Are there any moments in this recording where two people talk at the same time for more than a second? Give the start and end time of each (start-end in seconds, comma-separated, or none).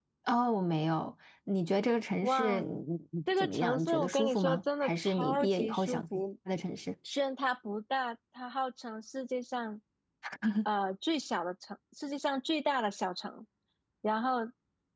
3.4-6.2